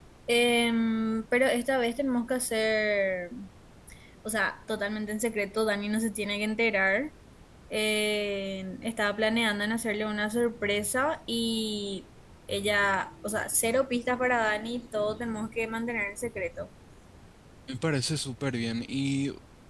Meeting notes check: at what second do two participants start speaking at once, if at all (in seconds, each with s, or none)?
none